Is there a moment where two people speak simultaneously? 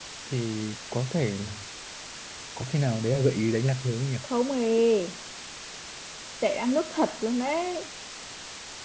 No

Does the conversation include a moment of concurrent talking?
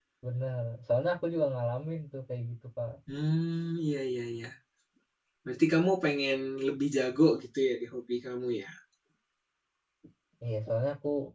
No

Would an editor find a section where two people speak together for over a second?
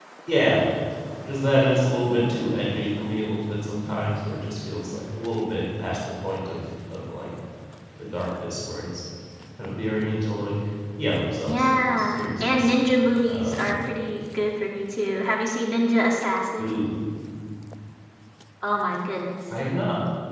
Yes, from 11.4 s

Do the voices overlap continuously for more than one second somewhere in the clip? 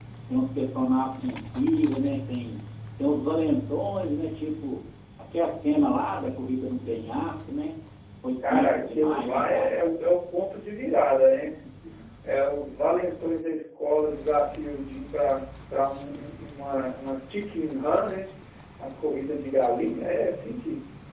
Yes, from 8.5 s

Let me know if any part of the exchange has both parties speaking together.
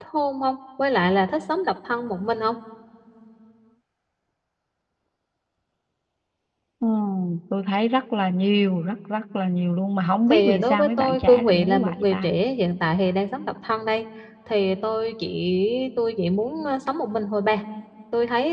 Yes, from 10.3 s

